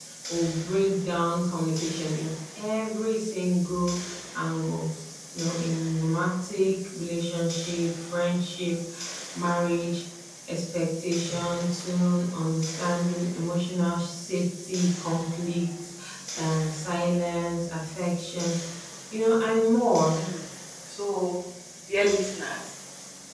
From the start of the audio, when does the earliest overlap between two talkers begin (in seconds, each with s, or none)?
none